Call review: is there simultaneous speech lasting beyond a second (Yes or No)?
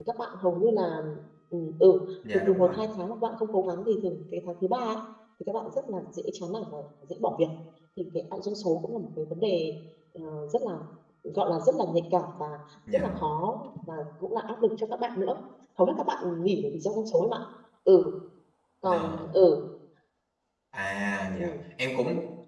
No